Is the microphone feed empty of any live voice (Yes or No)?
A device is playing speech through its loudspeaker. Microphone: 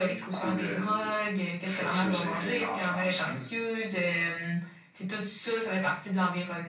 Yes